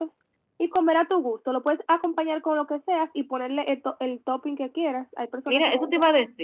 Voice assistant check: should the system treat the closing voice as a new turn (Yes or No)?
Yes